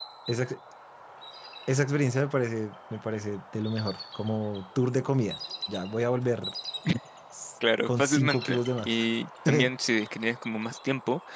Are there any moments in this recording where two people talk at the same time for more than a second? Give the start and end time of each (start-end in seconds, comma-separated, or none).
7.9-9.1